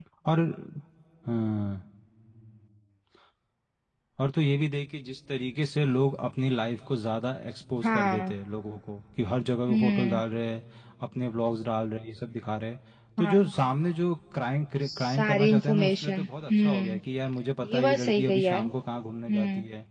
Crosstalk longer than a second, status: present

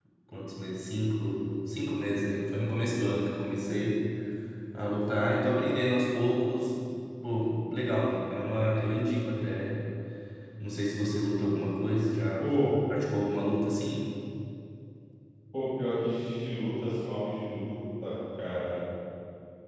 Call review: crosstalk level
none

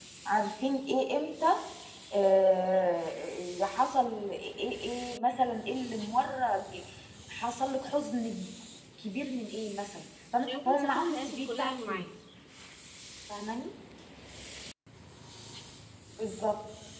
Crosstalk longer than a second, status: present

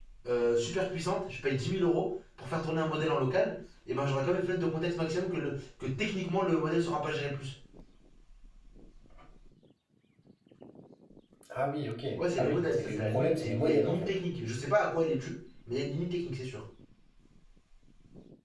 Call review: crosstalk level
present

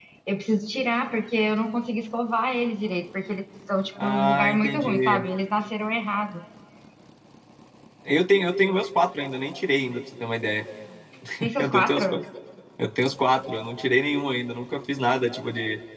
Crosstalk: present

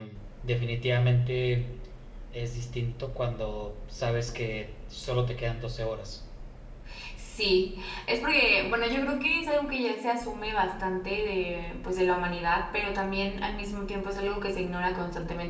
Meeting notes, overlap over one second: none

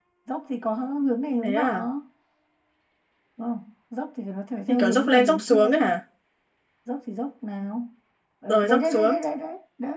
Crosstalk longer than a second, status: present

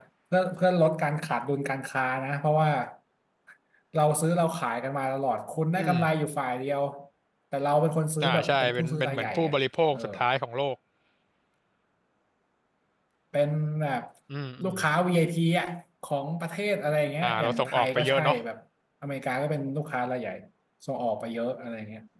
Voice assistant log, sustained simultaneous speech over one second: present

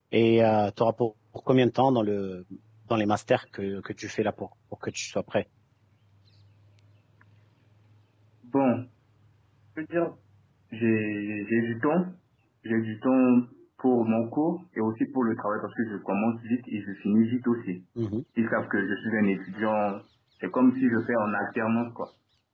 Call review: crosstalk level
none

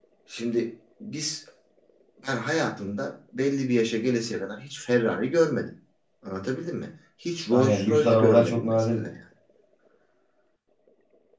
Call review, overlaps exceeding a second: present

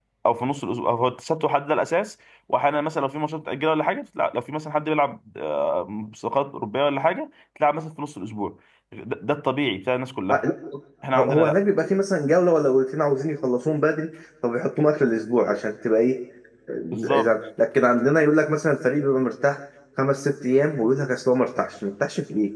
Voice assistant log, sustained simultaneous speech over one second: none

